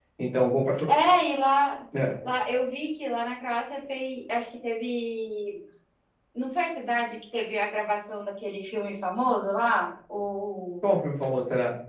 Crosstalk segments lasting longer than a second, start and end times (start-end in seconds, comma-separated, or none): none